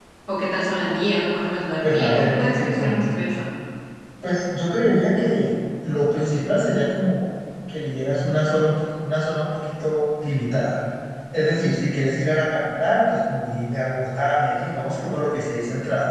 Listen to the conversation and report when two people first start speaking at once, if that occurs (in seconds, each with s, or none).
1.8 s